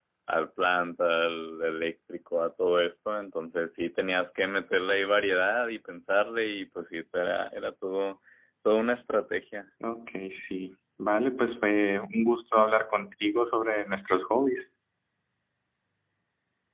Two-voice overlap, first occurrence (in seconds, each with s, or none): none